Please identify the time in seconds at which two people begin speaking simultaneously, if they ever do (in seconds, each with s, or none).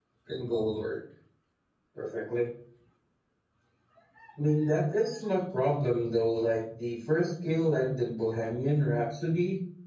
none